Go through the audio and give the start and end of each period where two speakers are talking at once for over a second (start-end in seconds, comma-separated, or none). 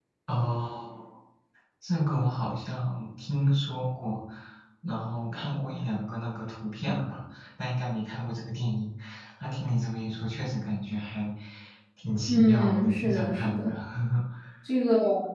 12.3-13.7